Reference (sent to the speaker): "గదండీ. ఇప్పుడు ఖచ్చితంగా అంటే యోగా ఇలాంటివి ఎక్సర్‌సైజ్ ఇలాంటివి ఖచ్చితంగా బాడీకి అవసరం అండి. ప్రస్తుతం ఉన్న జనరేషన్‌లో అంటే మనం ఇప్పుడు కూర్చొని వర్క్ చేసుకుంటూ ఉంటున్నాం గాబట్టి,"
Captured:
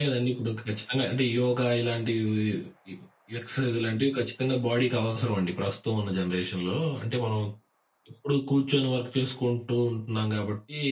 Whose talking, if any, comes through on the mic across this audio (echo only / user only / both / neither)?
echo only